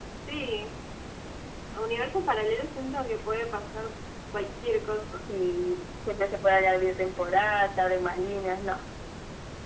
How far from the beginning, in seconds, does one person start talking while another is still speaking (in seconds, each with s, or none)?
none